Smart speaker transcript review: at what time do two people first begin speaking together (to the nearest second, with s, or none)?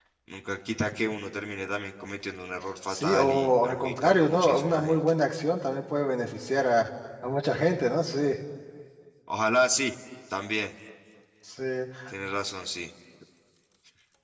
3 s